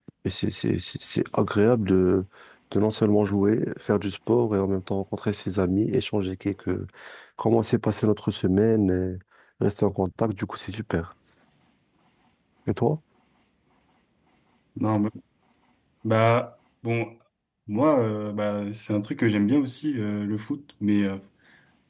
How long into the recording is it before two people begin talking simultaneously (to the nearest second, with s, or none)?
none